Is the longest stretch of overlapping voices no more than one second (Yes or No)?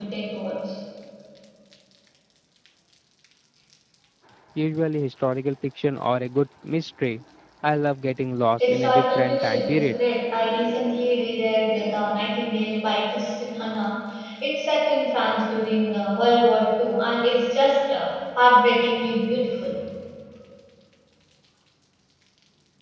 No